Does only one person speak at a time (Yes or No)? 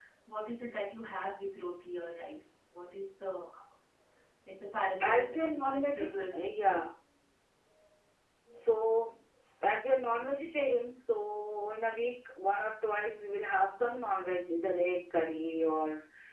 No